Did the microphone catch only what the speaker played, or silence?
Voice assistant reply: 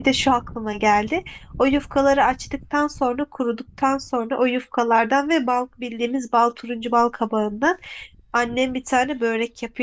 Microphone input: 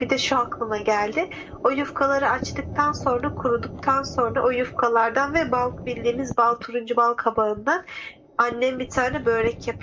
Yes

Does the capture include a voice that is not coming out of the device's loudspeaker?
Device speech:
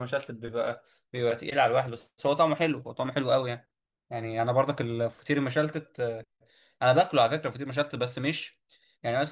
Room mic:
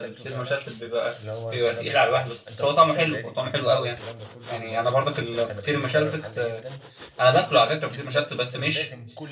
Yes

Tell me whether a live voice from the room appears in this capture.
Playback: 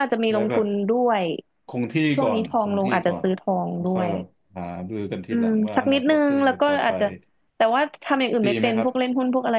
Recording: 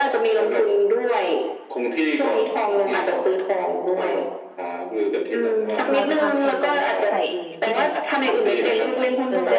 Yes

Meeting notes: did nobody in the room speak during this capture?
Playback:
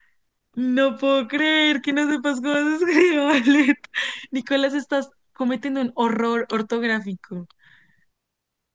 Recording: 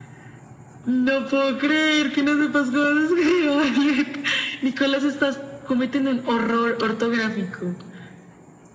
Yes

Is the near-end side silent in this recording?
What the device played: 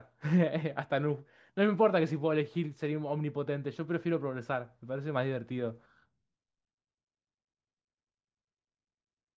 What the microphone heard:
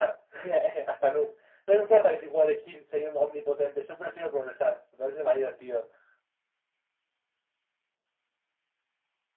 Yes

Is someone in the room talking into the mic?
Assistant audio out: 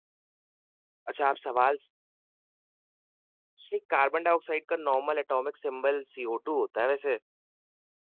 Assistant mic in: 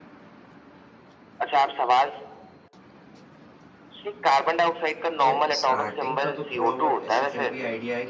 Yes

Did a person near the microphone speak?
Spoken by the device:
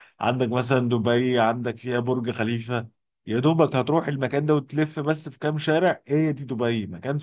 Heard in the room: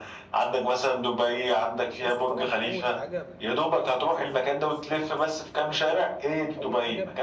Yes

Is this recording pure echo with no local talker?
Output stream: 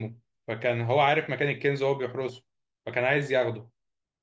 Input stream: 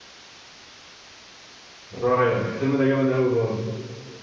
No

